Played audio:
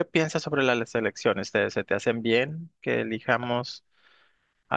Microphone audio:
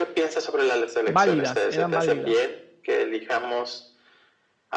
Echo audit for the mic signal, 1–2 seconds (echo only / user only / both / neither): both